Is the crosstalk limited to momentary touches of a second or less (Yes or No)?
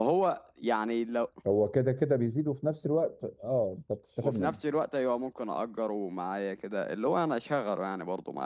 Yes